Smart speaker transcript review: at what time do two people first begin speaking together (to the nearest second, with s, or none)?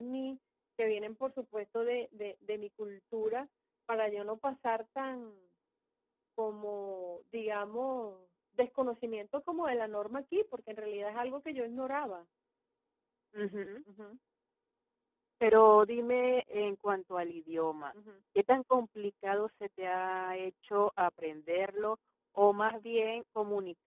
none